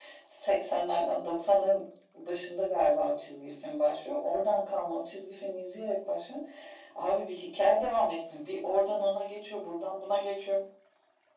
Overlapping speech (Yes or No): No